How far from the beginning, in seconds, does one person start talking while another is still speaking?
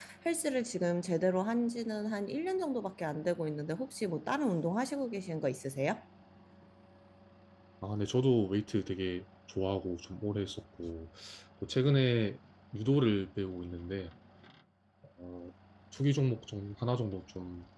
none

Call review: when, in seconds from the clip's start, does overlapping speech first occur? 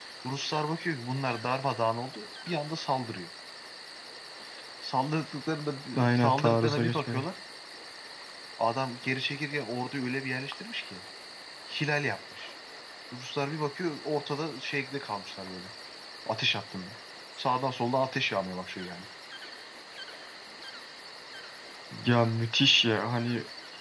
5.9 s

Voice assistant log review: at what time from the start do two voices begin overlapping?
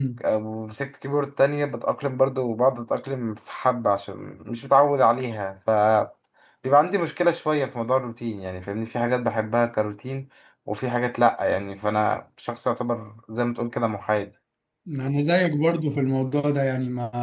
none

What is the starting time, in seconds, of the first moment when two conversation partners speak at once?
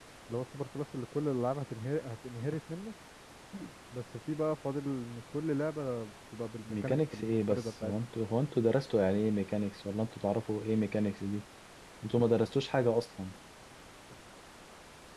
6.7 s

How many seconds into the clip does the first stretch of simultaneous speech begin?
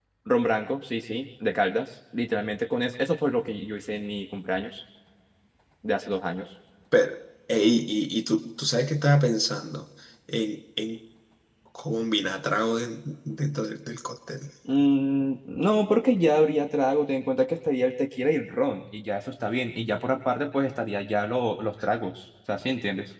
none

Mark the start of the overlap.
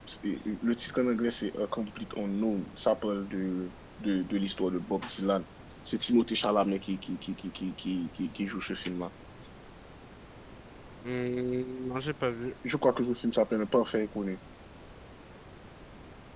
none

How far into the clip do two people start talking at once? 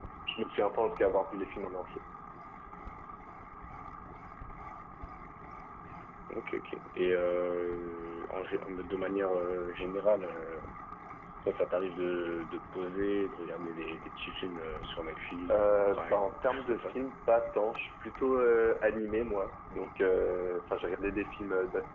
15.5 s

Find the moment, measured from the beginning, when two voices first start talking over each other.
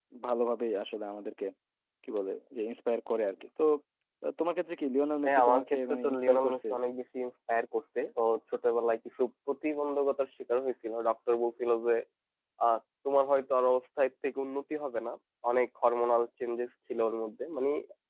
5.2 s

